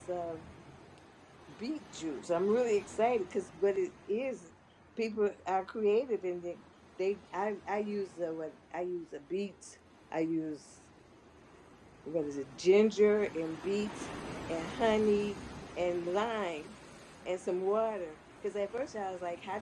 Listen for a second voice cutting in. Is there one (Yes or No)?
No